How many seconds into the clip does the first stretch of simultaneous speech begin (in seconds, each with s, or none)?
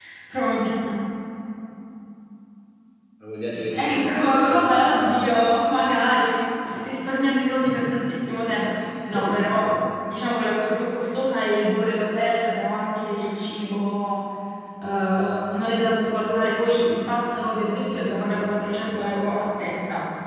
3.6 s